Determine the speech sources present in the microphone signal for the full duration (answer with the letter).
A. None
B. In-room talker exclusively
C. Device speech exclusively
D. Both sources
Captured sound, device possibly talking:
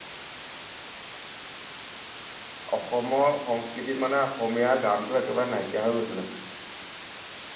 B